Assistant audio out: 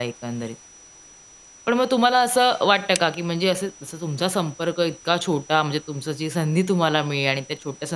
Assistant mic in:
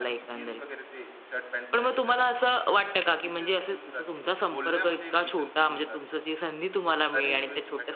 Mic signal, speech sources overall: both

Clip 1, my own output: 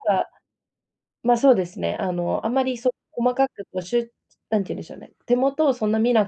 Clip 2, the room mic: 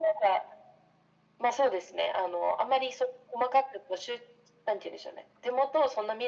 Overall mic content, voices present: echo only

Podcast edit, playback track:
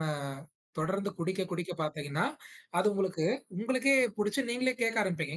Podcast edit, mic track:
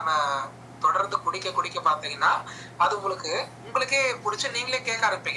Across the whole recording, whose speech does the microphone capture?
echo only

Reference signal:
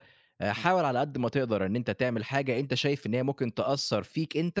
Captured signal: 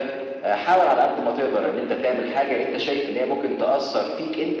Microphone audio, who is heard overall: echo only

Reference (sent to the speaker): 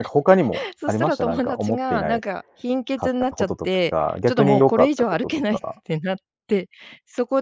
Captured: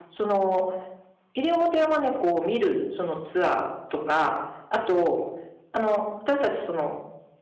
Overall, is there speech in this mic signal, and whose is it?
user only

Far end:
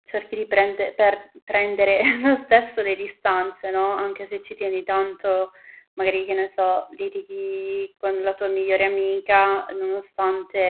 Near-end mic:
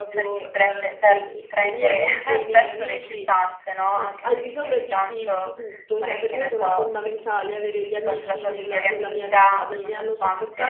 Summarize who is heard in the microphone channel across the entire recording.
both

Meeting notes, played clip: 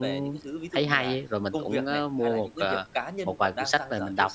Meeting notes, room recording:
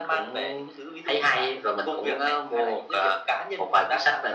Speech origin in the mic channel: echo only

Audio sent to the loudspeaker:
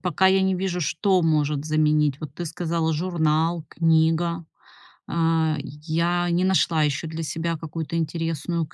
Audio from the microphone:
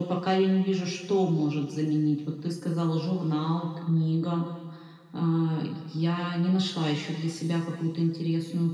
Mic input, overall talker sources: echo only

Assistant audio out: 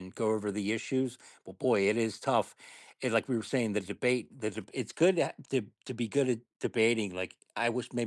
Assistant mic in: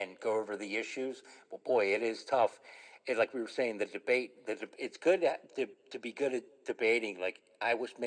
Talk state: echo only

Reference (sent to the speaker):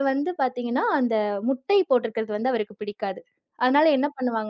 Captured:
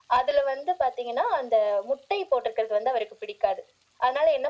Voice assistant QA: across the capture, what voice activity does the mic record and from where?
echo only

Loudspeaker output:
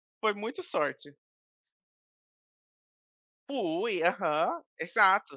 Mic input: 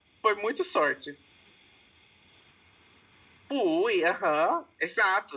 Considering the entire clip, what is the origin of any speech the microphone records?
echo only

